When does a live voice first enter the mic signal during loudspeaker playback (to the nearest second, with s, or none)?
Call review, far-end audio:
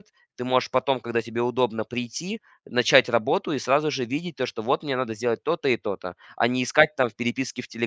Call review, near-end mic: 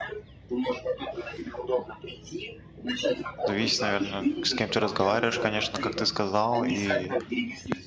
3 s